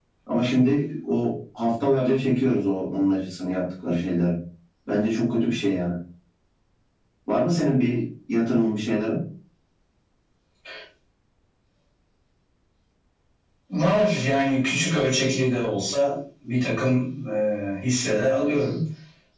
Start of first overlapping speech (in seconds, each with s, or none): none